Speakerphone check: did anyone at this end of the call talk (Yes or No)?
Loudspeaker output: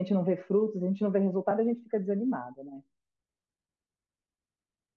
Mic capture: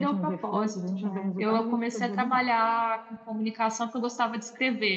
Yes